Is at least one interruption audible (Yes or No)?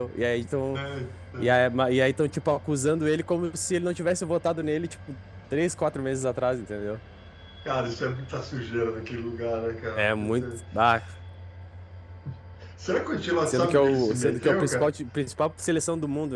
Yes